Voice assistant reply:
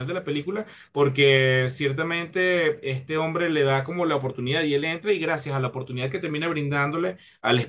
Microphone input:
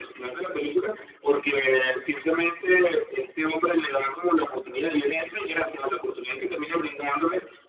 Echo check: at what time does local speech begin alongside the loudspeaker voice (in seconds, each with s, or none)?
none